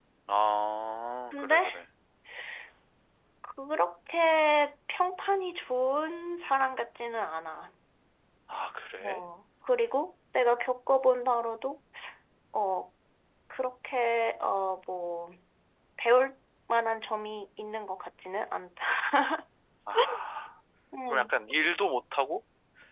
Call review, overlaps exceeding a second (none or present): none